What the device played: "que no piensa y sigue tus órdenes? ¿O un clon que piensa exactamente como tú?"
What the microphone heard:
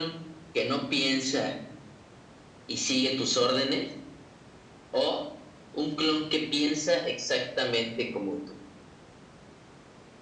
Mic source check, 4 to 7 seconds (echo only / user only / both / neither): echo only